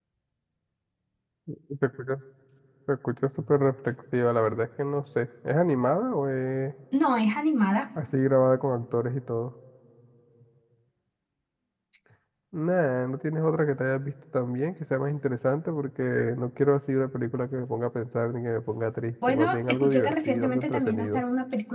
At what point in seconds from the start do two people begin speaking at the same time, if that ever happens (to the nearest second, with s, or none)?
19 s